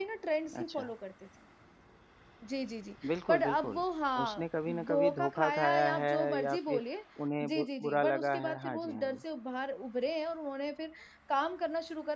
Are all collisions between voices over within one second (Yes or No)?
No